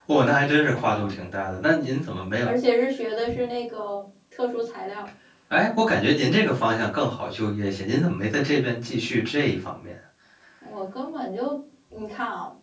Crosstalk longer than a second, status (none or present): none